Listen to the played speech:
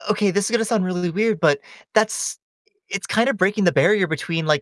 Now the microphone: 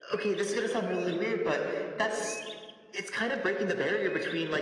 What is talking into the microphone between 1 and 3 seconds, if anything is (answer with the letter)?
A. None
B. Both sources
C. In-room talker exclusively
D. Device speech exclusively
D